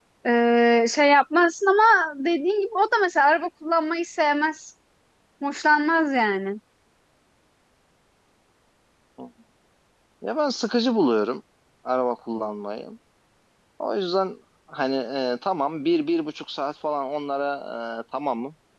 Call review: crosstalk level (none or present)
none